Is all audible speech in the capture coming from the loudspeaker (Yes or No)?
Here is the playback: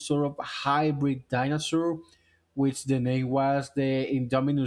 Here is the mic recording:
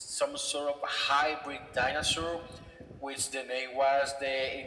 Yes